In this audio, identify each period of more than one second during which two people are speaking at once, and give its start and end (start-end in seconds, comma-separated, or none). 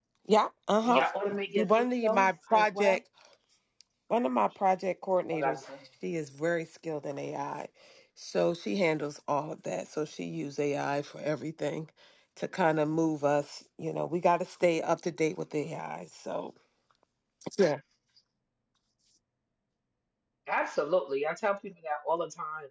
1.5-3.0